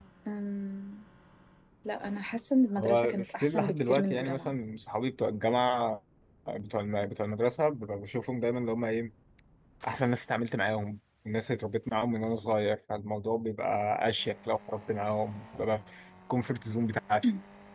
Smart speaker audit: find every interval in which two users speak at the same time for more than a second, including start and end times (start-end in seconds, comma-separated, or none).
2.8-4.5